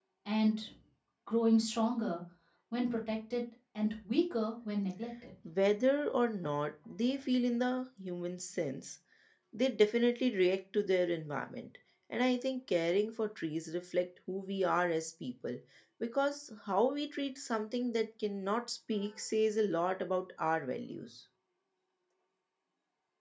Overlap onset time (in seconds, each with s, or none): none